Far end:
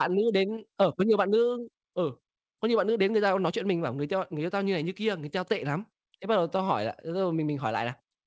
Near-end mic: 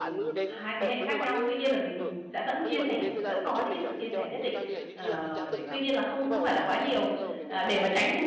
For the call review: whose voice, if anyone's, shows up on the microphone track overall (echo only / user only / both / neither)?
both